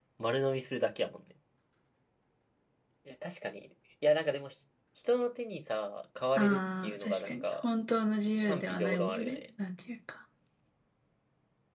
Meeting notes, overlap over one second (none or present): present